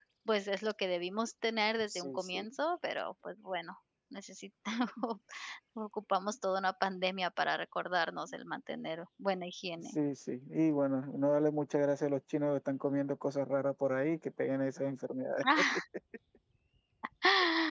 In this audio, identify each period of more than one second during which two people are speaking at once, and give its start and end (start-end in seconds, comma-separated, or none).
none